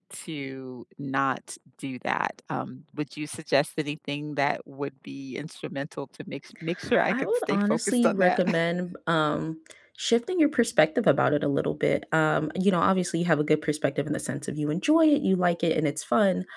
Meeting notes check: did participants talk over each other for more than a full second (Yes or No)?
Yes